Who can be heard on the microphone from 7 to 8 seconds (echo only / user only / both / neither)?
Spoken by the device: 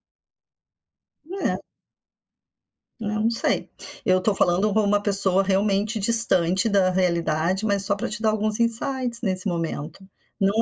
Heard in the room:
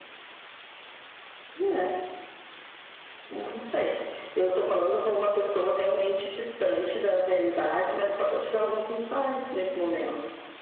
echo only